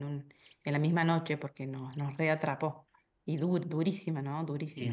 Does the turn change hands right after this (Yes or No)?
Yes